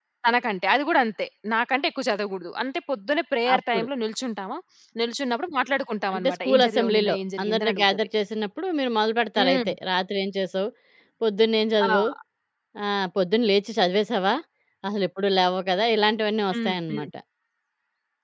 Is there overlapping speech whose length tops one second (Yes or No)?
Yes